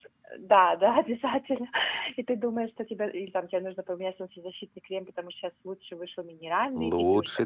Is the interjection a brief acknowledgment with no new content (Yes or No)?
No